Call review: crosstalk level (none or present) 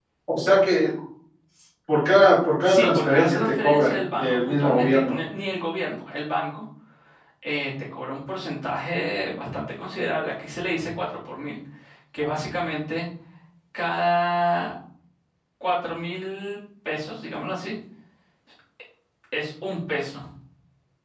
present